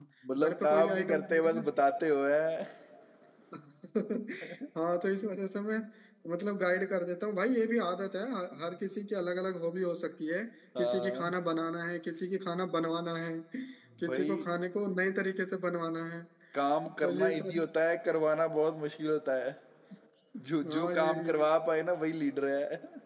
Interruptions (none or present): present